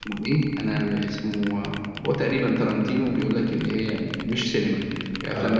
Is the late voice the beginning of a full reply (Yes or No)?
No